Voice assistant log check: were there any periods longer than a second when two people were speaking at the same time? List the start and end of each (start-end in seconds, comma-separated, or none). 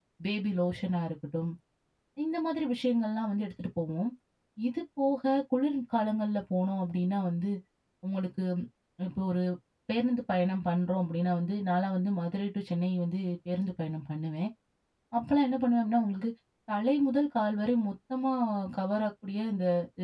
none